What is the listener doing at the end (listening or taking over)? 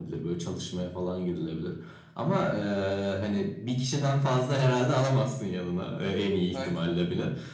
listening